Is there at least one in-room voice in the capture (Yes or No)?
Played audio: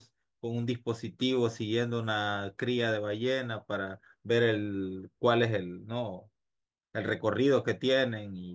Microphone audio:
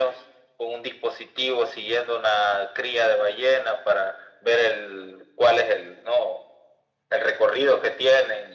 No